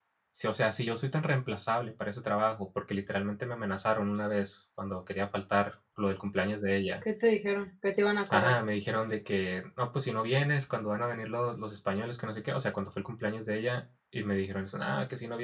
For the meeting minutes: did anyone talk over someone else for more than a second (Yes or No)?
No